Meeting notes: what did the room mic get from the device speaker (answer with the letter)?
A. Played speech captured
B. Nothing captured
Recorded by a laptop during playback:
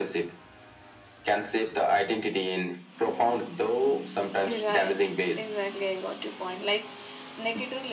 A